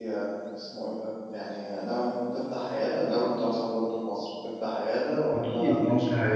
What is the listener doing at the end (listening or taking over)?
taking over